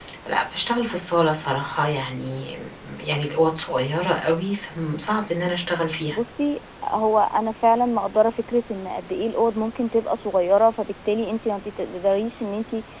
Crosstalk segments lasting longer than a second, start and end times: none

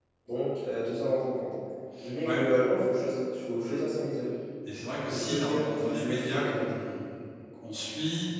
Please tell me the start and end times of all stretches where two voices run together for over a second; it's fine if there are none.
5.1-6.7

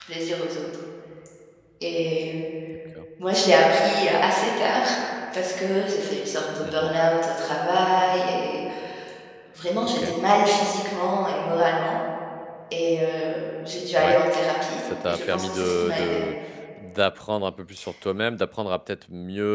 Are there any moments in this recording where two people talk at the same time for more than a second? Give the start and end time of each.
14.8-16.2

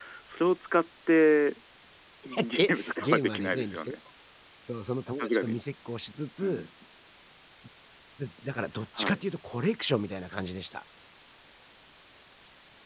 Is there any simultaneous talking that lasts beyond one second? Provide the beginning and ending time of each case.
2.3-4.0

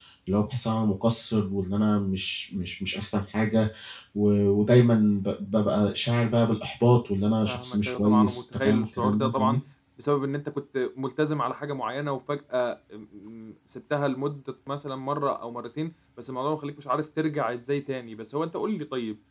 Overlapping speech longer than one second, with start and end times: 7.5-9.6

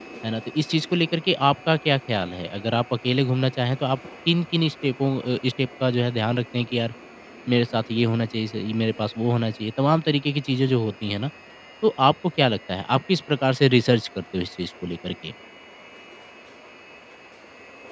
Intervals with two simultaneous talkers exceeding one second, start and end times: none

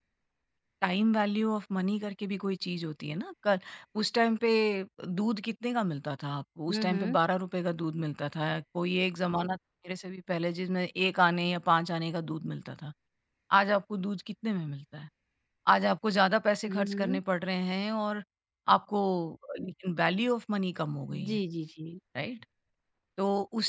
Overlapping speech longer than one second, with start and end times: none

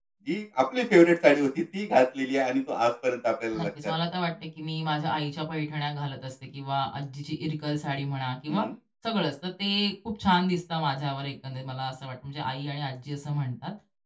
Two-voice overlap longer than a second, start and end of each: none

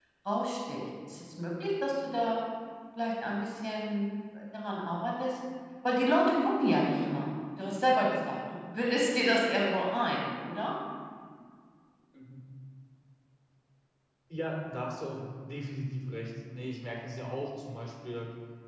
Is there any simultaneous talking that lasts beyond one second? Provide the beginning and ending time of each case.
none

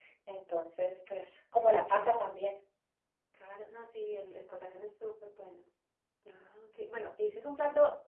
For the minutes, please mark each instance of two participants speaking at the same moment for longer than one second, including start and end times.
none

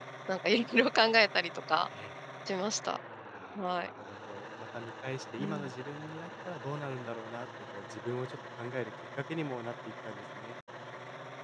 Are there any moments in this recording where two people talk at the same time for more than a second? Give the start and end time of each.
none

